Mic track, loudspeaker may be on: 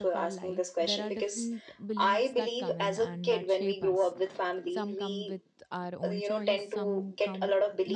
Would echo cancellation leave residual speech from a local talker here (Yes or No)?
Yes